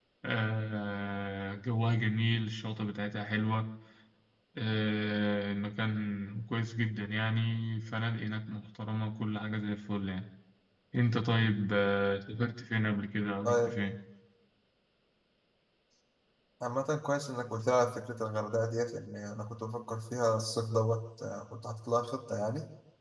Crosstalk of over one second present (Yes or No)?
No